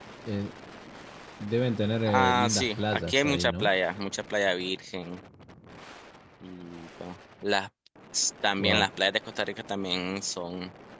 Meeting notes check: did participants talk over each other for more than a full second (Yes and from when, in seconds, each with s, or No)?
Yes, from 2.1 s